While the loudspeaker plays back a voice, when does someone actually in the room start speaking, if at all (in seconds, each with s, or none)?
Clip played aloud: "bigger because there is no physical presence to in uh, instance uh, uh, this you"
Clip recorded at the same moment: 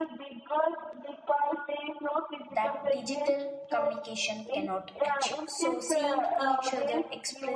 2.5 s